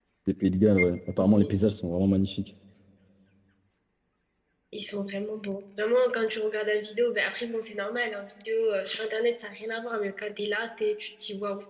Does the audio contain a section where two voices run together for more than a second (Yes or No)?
No